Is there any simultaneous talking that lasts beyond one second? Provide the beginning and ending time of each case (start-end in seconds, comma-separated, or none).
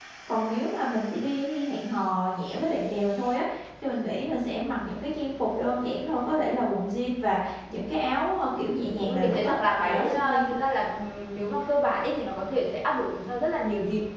8.8-10.5